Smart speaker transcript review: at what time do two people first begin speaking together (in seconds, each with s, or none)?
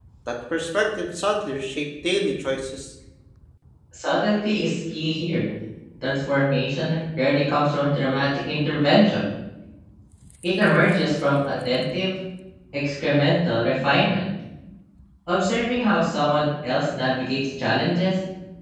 none